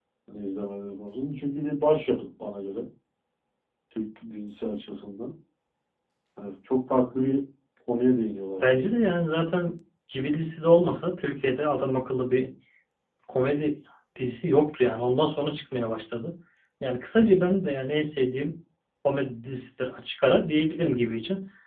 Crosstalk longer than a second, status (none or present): none